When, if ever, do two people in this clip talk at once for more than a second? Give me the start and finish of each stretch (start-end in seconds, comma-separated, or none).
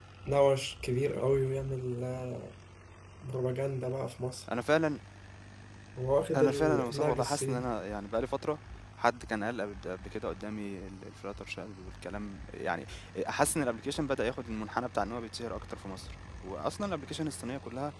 6.4-7.7